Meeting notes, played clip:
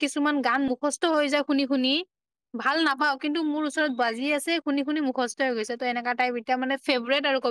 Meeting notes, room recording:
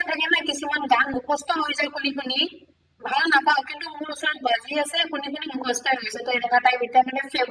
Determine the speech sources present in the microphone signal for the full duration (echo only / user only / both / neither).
echo only